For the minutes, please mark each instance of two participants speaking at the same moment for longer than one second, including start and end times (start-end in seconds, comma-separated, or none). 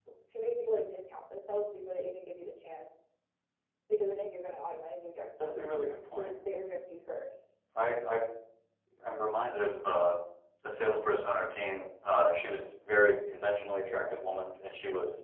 none